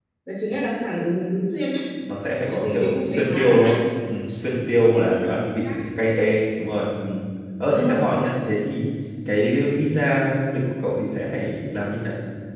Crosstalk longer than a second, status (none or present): present